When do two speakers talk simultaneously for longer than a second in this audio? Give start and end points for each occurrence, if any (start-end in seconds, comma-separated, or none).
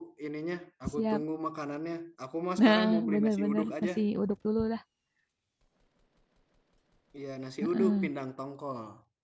2.6-3.9